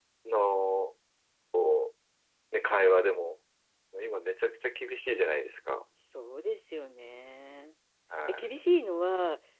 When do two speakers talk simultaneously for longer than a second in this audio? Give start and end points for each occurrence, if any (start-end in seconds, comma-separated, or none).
none